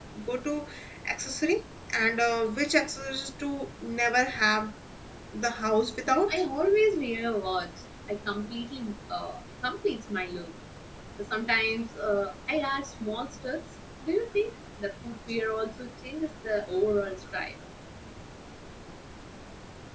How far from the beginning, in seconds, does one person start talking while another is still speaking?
none

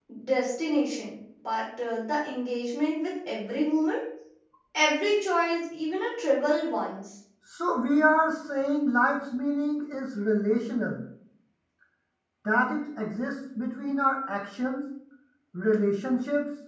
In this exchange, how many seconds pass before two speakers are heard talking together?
none

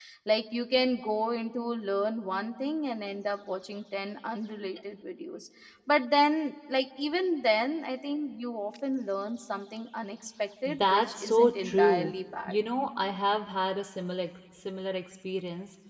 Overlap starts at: 10.7 s

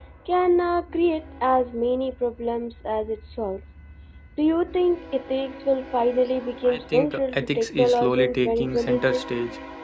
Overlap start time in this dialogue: 6.6 s

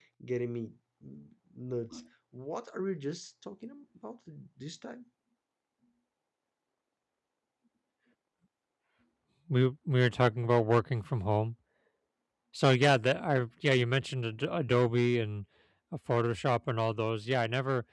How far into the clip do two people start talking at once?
none

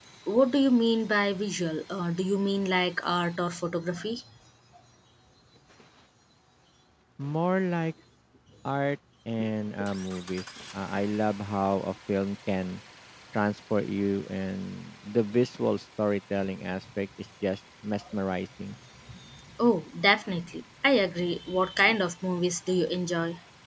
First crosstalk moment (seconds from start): none

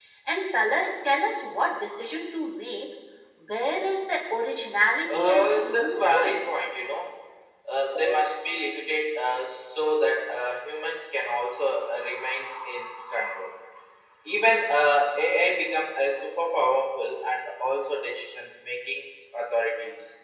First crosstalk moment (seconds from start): 5.0 s

